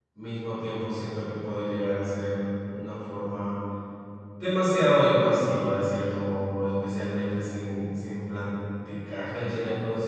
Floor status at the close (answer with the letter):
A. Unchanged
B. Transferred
A